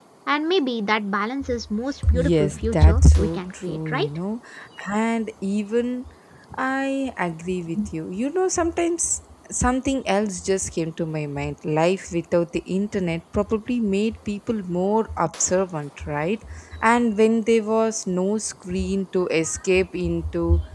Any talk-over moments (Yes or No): Yes